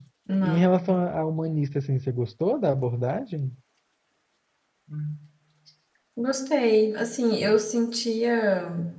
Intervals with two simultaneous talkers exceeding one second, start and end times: none

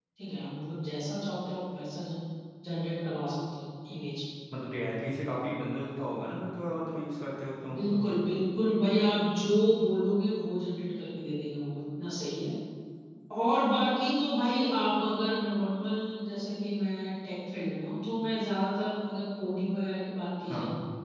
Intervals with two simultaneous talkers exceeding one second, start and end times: none

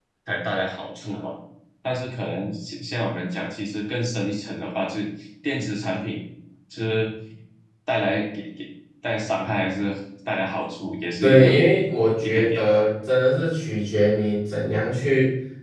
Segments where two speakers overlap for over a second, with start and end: none

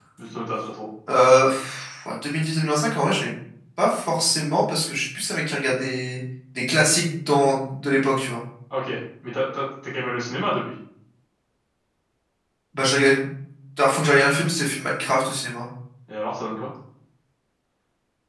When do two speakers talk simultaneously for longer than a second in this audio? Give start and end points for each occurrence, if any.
none

